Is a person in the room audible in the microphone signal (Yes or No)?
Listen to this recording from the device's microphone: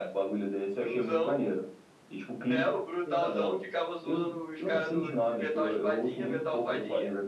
No